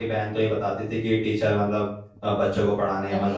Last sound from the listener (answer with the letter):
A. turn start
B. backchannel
B